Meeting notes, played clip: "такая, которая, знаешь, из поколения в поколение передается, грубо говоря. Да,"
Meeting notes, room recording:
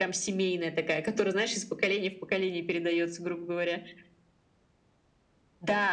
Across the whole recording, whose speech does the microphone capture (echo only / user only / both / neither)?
echo only